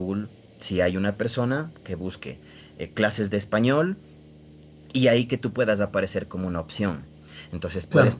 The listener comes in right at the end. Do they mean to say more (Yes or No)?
No